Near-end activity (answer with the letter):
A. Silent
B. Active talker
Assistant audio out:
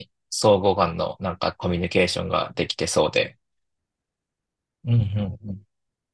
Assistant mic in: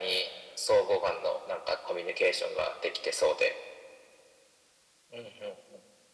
A